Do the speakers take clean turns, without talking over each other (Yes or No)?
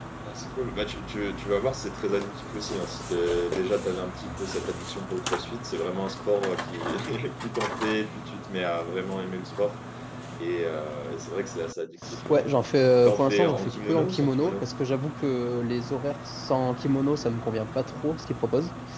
No